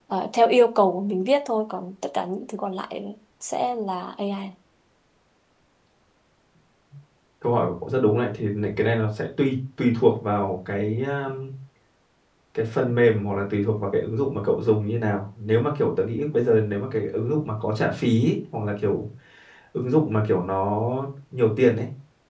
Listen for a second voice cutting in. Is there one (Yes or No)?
No